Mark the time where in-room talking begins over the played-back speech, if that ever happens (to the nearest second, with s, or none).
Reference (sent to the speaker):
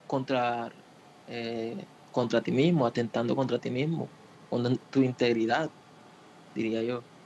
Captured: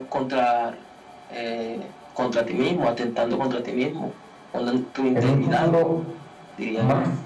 5 s